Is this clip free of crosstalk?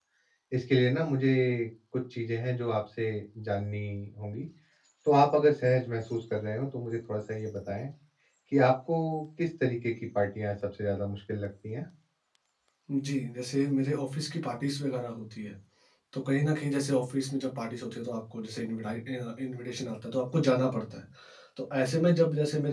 Yes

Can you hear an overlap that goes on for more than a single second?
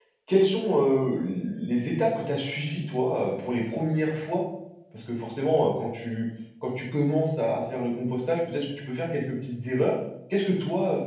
No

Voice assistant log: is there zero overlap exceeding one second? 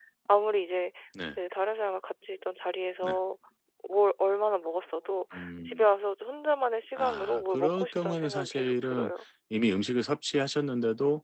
No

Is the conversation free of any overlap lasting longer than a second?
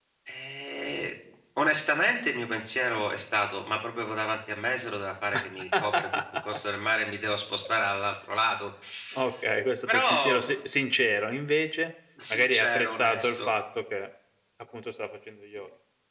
No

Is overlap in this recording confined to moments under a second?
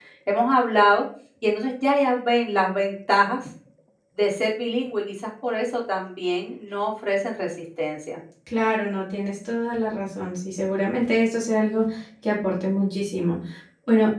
Yes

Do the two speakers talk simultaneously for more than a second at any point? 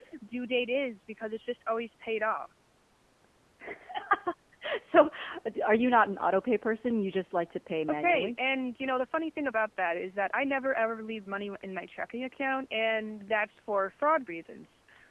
No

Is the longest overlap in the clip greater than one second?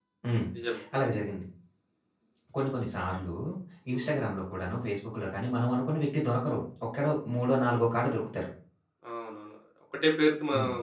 No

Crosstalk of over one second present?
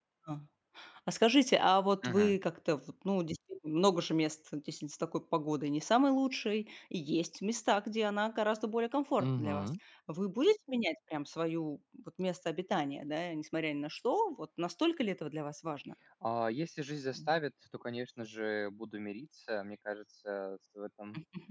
No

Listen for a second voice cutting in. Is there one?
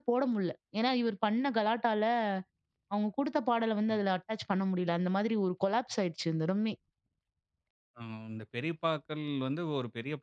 No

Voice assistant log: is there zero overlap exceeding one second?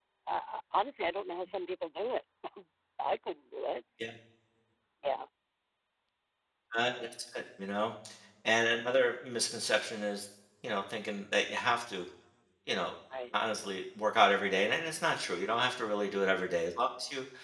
Yes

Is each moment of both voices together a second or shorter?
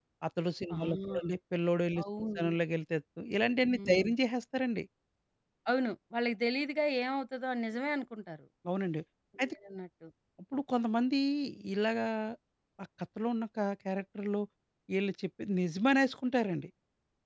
Yes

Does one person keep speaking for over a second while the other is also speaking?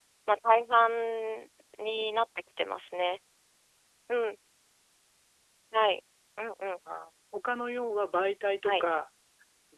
No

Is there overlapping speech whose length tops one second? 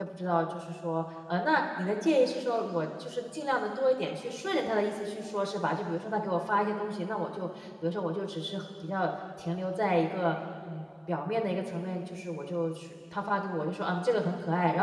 No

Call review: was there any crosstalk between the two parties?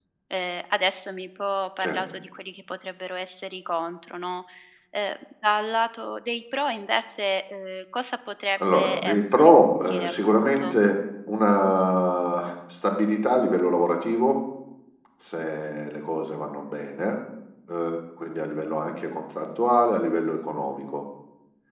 Yes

